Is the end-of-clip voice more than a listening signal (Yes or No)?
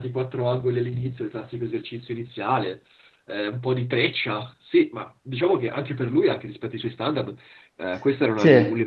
No